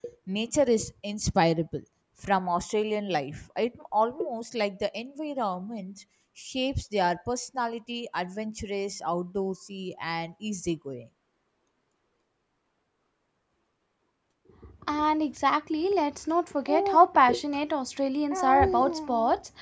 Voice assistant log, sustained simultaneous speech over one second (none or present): none